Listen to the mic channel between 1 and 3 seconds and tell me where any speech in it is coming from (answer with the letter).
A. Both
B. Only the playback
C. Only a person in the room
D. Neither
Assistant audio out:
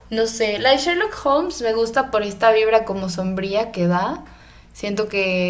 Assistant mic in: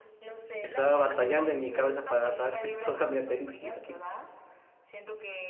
A